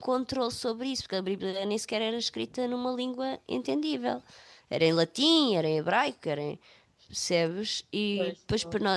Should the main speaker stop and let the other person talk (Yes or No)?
No